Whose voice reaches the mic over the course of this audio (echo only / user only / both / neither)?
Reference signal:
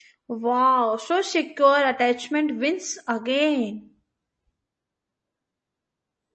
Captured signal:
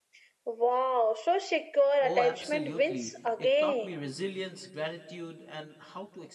both